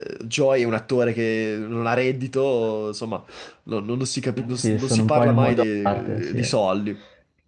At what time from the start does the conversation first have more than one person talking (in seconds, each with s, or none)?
4.5 s